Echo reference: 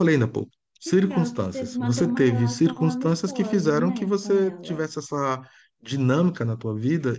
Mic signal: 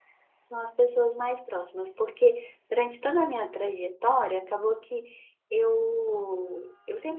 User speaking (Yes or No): Yes